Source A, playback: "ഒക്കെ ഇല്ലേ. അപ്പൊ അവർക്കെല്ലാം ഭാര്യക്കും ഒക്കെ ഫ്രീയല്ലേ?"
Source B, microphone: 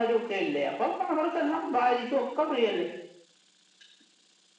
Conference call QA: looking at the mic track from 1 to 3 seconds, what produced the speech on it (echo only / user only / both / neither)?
echo only